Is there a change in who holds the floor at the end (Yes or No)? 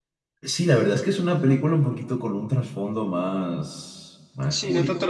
Yes